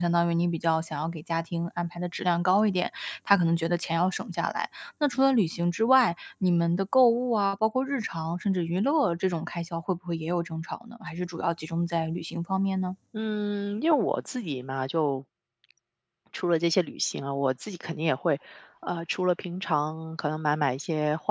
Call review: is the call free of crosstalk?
Yes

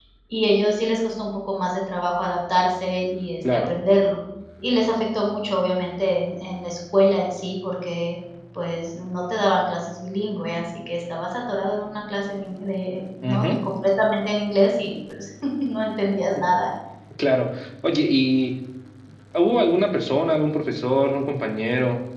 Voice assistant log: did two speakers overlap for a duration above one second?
No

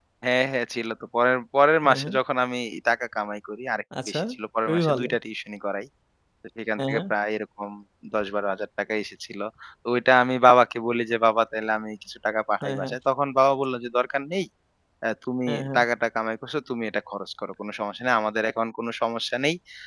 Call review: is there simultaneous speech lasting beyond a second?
No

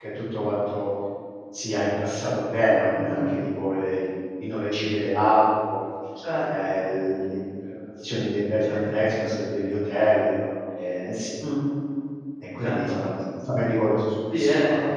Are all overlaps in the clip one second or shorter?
Yes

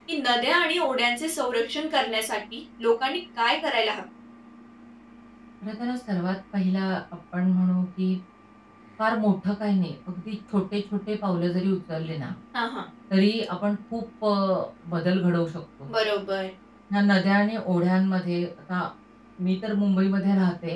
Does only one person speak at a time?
Yes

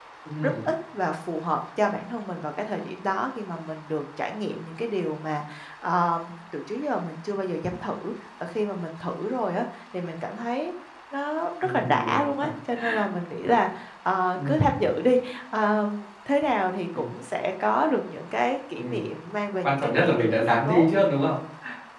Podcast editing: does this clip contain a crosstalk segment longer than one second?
Yes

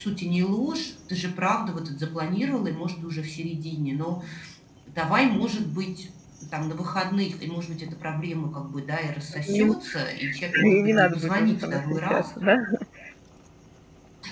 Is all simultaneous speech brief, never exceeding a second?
No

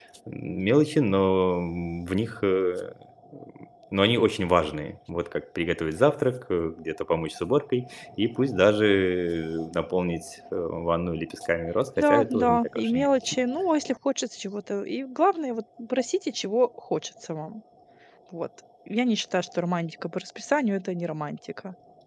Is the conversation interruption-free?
No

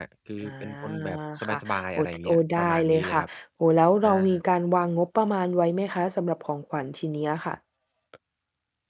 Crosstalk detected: Yes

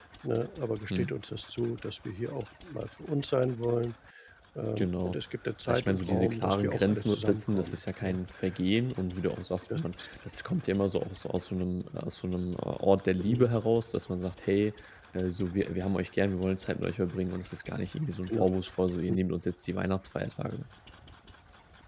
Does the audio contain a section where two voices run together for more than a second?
Yes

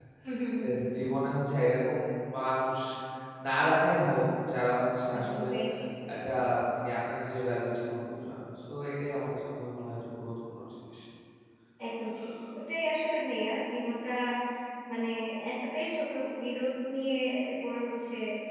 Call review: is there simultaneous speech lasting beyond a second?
No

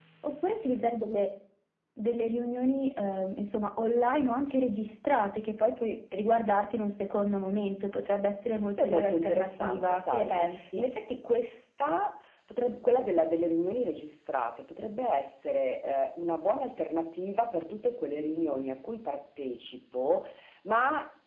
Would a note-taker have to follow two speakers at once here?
Yes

